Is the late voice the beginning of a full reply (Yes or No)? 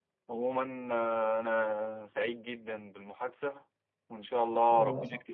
No